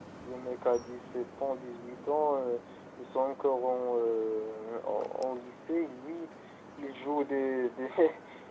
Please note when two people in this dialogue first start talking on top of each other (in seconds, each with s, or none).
none